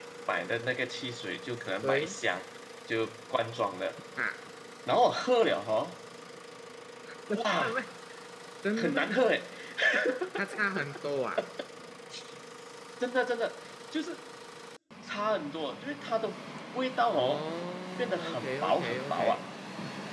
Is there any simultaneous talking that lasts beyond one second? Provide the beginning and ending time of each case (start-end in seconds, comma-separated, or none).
18.0-19.4